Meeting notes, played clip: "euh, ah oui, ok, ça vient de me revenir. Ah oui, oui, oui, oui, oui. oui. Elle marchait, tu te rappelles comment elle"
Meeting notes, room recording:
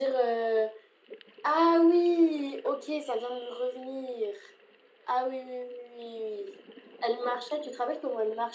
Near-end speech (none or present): none